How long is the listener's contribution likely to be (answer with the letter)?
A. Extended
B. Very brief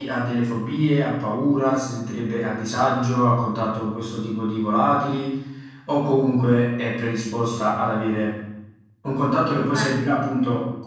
B